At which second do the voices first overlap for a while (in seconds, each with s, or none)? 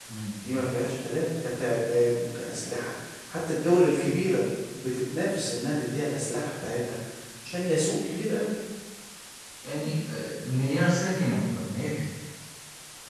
none